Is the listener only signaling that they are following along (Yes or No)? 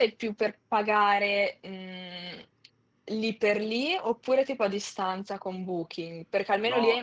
No